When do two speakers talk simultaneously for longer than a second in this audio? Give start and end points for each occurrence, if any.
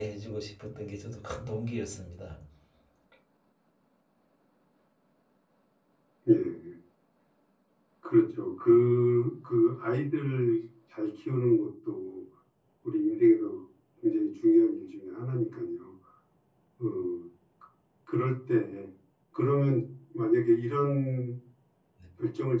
none

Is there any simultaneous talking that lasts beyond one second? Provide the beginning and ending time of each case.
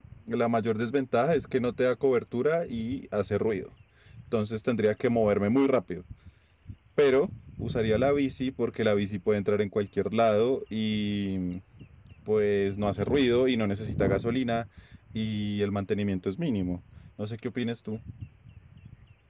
none

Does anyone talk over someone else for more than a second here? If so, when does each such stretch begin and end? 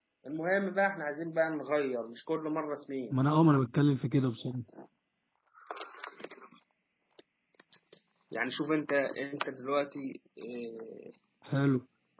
none

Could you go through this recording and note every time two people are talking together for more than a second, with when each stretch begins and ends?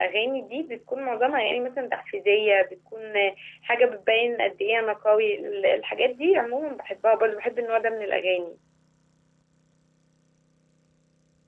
none

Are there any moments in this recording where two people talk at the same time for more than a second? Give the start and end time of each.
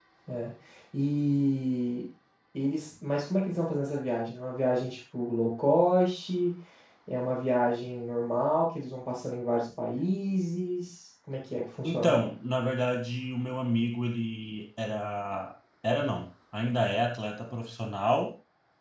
none

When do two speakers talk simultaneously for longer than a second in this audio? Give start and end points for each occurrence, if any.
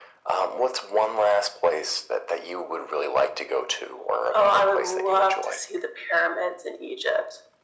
4.3-5.7

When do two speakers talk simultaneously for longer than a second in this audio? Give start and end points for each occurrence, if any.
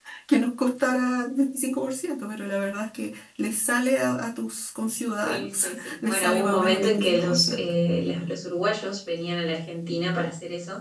5.2-7.7

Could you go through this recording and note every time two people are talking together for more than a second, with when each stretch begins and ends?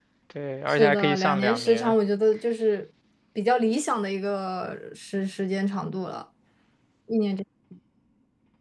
0.7-1.9

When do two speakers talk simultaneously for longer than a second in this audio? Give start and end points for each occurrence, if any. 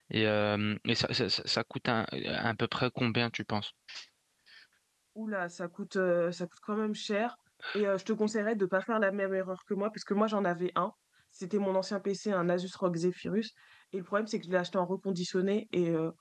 none

